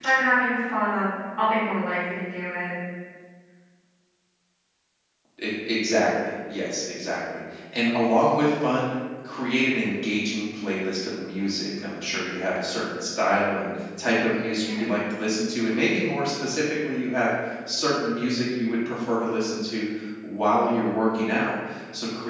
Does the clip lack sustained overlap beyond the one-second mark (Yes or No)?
Yes